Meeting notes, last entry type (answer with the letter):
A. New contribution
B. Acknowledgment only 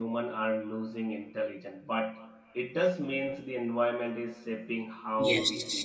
A